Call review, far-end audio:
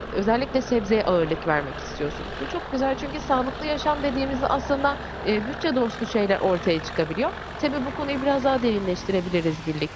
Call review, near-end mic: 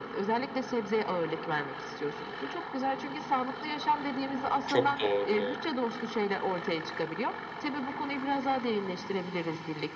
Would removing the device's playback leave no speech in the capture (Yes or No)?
No